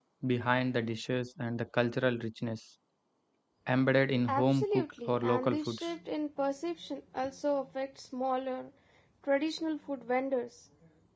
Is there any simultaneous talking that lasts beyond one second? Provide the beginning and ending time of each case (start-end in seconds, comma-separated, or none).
4.3-5.9